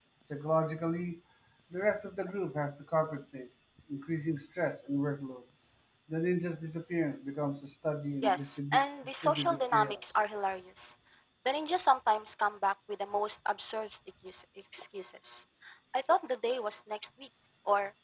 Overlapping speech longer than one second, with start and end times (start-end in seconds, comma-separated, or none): 8.2-10.0